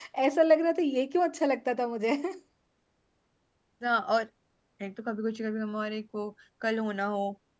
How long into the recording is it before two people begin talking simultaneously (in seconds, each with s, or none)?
none